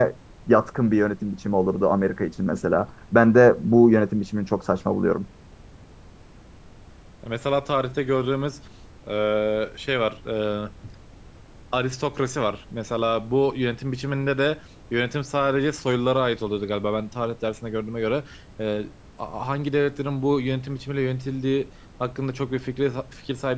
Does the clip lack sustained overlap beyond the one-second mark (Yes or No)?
Yes